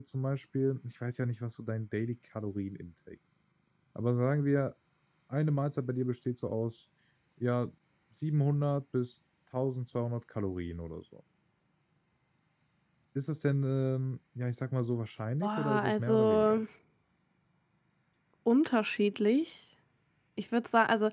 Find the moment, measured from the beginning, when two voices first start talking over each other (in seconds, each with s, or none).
15.4 s